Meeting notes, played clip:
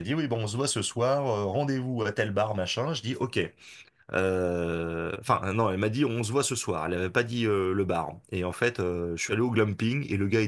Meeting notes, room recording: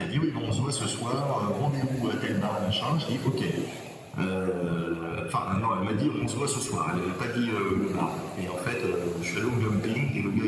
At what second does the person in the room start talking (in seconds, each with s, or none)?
none